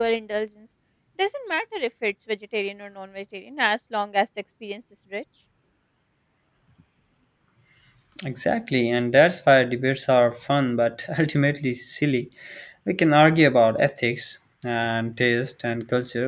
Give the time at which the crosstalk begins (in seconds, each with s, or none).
none